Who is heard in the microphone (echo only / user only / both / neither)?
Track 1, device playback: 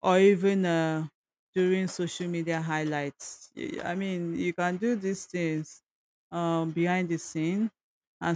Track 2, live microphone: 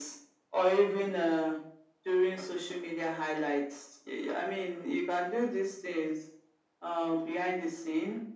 echo only